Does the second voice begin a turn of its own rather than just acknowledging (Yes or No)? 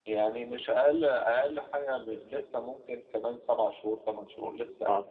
Yes